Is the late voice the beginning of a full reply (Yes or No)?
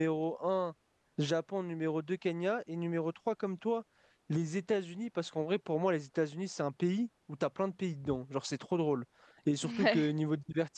No